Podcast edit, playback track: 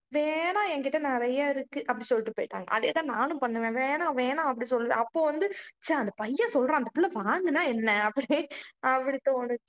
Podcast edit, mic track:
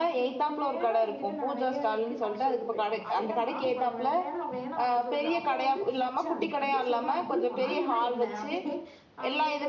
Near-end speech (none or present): present